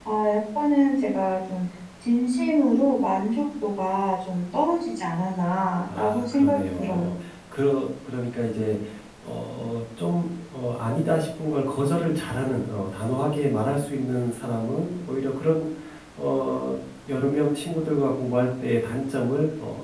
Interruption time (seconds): 5.9 s

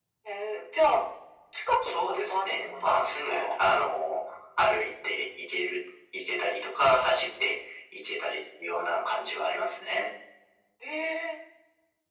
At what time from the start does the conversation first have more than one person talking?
1.8 s

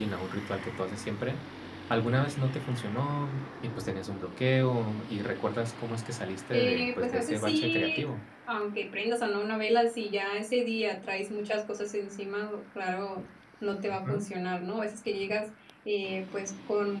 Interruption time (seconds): 6.5 s

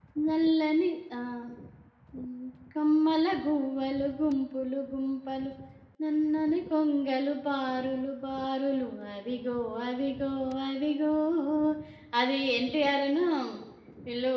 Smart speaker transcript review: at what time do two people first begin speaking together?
none

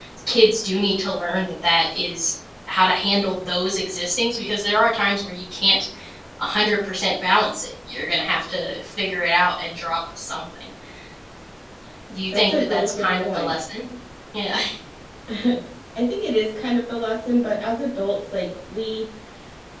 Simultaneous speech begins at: 12.3 s

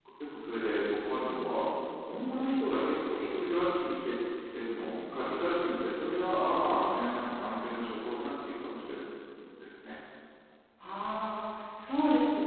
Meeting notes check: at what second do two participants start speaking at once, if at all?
none

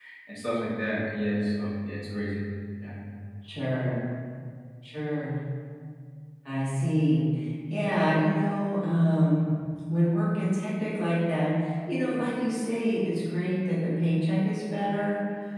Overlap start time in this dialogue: none

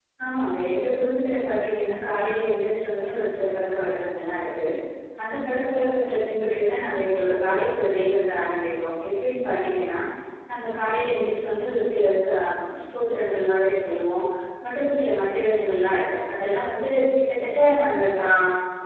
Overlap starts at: none

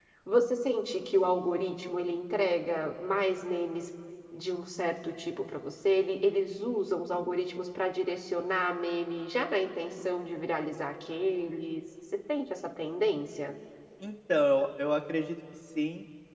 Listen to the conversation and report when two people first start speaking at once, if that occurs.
none

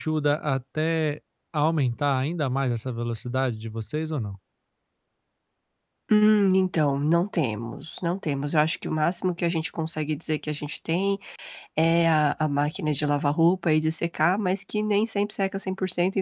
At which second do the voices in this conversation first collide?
none

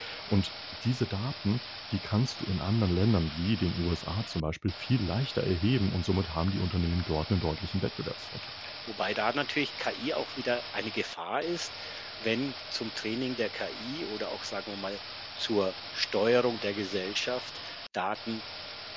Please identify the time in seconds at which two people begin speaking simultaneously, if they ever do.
none

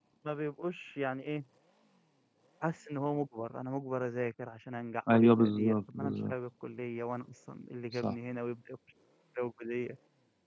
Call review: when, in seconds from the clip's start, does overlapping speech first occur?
5.1 s

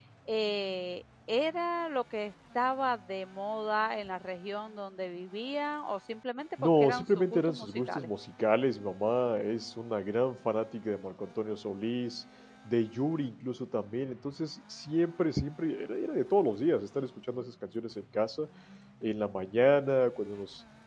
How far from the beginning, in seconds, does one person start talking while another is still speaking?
6.6 s

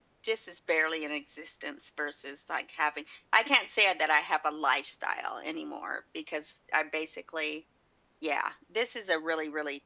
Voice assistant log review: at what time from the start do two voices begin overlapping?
none

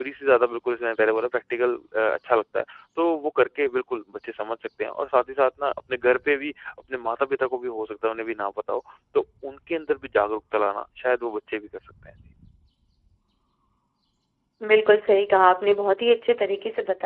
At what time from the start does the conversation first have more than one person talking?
none

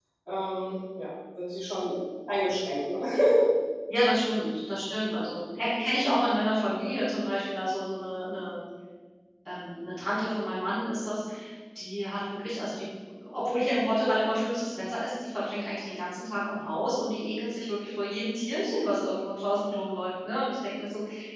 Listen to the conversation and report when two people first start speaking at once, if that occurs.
none

